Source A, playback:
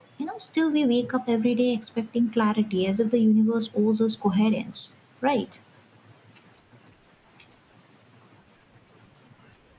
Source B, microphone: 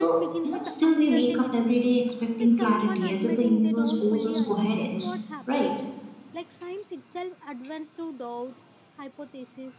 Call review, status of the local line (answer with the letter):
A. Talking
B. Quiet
A